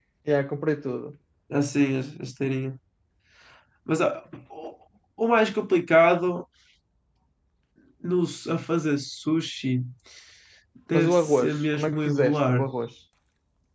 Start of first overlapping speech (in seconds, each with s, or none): 10.9 s